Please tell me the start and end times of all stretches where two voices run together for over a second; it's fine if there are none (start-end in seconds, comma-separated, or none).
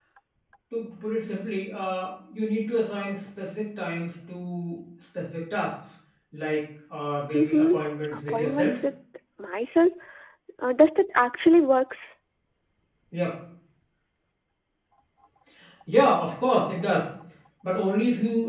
7.3-8.8